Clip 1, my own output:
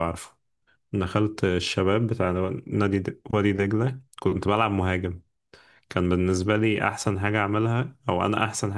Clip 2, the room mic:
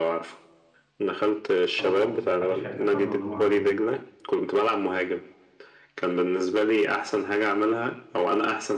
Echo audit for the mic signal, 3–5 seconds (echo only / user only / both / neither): both